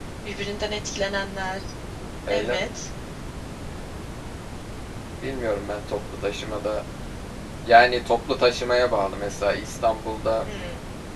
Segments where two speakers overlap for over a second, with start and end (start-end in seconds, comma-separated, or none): none